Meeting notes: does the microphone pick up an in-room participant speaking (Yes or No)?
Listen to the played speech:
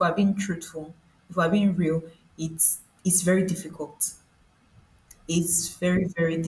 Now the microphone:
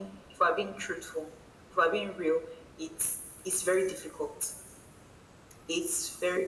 No